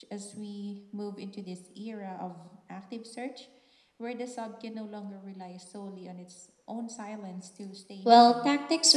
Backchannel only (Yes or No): No